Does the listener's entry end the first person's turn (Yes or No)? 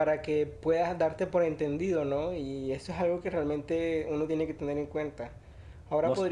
No